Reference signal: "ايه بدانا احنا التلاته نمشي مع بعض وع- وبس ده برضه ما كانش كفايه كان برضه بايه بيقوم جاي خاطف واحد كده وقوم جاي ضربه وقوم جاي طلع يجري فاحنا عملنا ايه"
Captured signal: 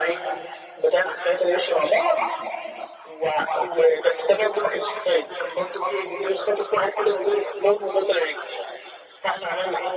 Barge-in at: none

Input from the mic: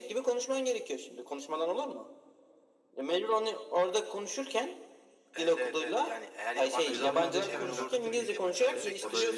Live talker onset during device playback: 6.9 s

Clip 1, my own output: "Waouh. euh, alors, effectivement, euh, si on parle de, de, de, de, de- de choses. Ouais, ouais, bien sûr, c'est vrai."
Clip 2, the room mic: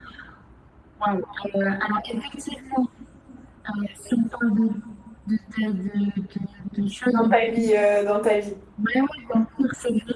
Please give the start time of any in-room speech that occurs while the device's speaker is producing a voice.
7.1 s

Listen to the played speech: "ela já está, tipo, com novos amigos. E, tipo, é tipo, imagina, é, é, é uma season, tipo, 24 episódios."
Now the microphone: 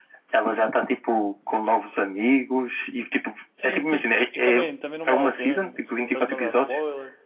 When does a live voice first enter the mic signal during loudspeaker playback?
3.5 s

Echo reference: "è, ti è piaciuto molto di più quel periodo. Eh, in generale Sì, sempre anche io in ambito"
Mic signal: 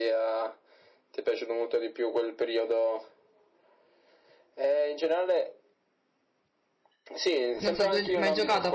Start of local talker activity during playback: 7.6 s

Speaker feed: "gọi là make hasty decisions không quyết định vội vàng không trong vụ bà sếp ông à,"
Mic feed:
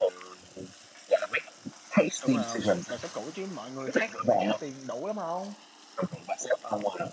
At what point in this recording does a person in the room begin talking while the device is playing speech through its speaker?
2.2 s

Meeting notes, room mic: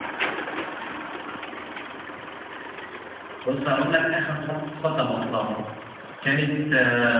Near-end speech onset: 3.4 s

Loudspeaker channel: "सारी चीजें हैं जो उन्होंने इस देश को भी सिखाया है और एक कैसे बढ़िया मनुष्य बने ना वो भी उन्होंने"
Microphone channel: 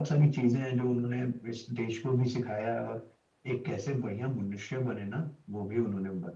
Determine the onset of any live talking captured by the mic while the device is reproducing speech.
none

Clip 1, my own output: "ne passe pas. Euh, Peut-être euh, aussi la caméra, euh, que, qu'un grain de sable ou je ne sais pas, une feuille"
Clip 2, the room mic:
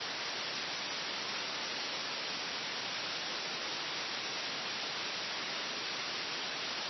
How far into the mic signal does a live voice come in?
none

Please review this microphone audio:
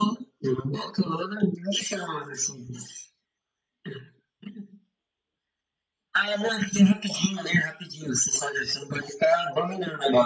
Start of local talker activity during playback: none

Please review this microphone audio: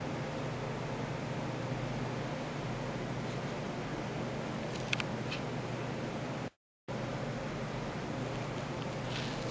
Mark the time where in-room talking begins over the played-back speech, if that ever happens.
none

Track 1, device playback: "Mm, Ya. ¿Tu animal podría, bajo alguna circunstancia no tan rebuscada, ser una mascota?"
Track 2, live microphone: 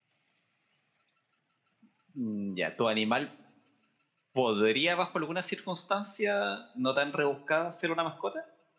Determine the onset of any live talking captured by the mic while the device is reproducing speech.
none

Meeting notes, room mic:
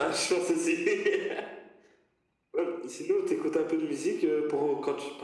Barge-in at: none

